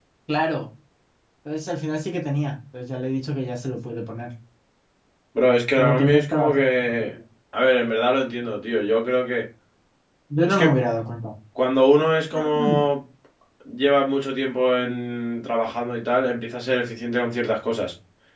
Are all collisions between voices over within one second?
No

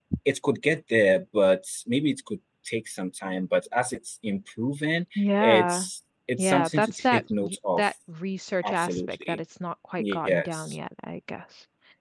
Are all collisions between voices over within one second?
No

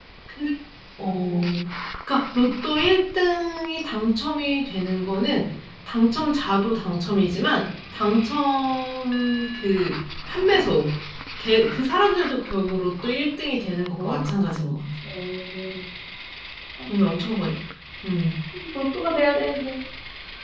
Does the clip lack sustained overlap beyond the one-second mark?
Yes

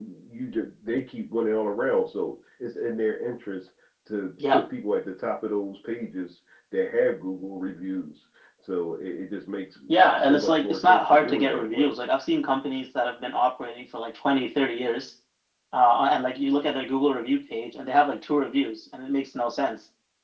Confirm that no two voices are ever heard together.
No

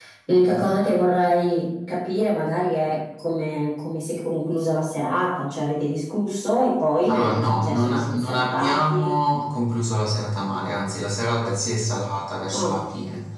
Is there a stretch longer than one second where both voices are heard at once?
Yes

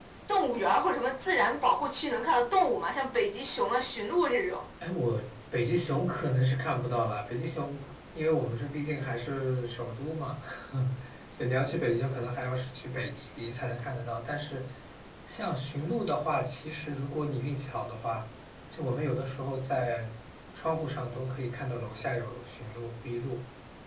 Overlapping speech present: No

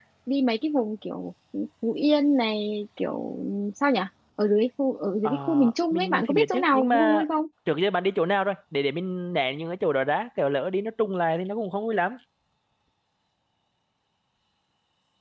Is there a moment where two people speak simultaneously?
Yes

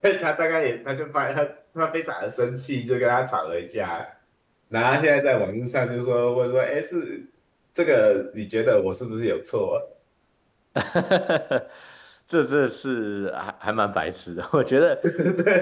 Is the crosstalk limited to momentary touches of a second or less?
Yes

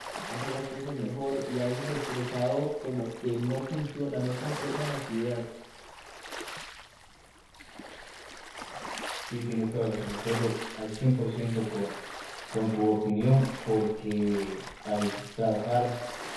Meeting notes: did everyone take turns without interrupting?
Yes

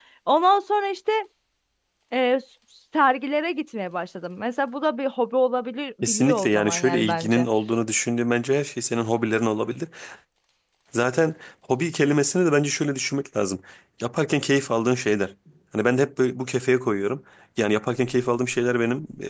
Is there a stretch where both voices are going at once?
Yes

